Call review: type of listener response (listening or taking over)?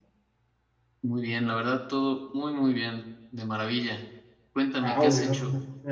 taking over